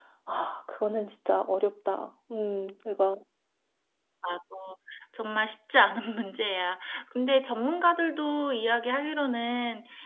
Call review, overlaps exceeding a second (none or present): none